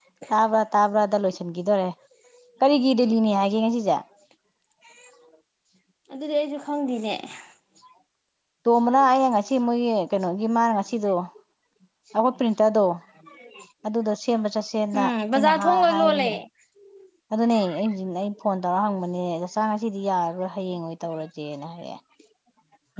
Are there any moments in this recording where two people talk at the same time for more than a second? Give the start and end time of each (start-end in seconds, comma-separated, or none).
15.0-16.3